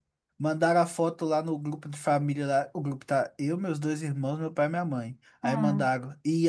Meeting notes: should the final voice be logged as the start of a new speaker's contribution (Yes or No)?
No